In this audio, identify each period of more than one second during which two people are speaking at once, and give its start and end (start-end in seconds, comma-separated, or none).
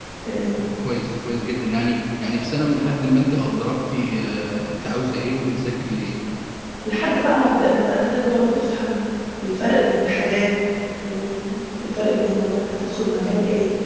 none